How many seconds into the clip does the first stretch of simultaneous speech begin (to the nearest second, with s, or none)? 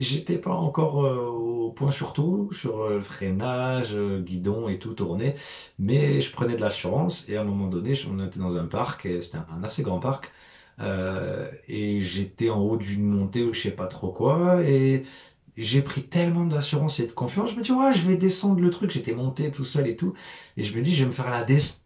none